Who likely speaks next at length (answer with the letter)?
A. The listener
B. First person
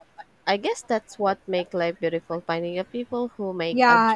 A